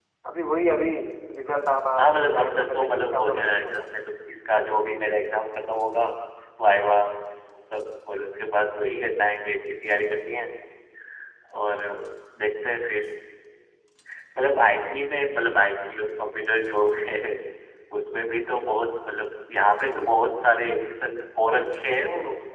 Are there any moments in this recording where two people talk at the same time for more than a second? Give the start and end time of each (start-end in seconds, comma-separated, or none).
2.0-3.8